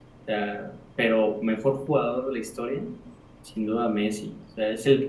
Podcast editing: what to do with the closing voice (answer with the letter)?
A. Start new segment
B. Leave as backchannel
B